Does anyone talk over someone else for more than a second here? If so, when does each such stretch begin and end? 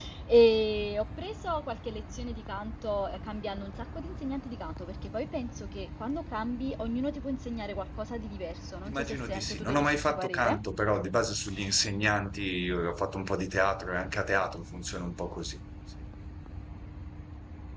8.8-10.6

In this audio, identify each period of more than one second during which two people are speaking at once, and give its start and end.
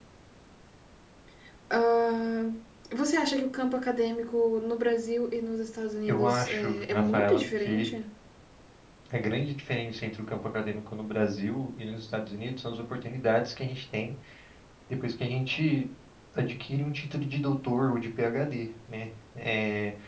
6.1-7.9

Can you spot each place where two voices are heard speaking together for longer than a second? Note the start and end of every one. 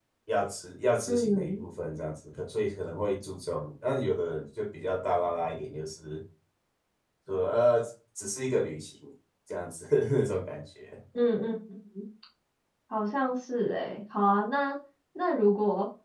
none

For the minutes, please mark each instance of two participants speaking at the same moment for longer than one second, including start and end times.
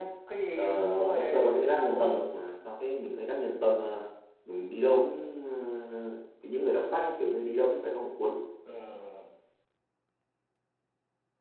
0.6-2.2

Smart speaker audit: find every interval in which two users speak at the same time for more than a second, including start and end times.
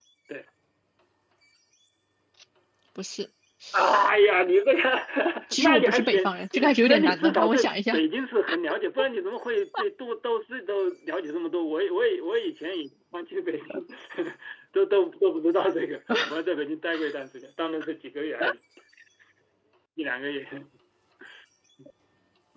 5.6-8.0

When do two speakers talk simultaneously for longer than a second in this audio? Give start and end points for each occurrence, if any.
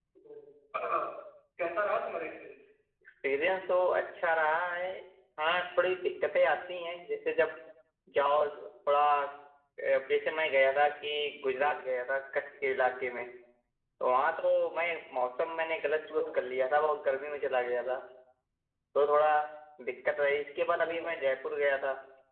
none

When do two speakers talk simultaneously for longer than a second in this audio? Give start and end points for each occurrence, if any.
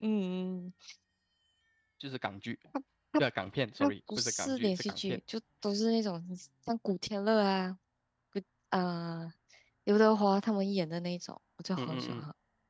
3.8-5.2

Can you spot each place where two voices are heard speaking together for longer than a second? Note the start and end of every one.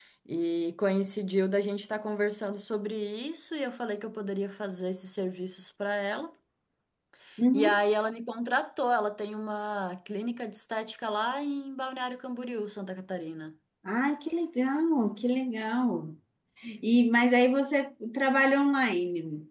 none

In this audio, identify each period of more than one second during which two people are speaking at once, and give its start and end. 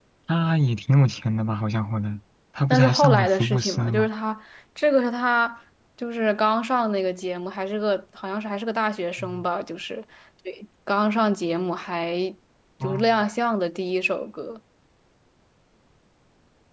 2.7-4.1

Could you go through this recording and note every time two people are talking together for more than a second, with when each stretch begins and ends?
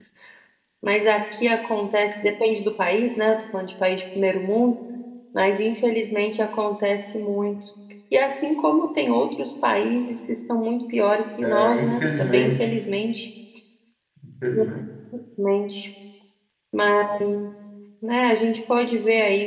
11.4-12.7

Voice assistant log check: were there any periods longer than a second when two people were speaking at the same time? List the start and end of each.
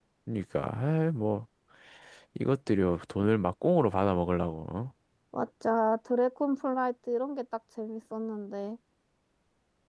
none

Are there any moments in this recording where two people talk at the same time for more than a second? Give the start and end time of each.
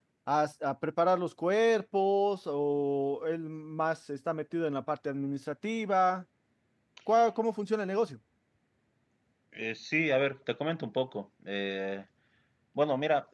none

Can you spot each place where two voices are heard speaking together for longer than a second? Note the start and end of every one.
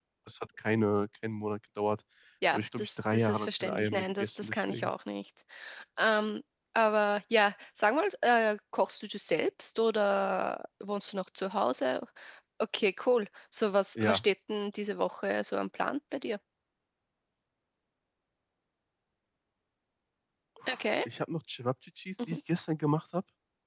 2.5-4.9

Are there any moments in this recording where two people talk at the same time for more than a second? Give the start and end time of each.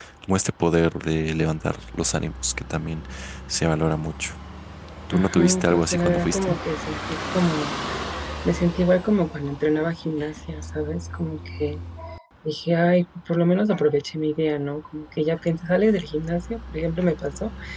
5.1-6.6

